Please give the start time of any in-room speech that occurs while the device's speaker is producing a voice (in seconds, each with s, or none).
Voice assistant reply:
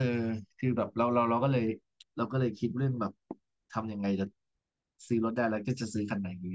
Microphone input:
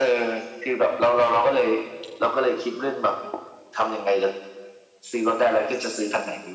none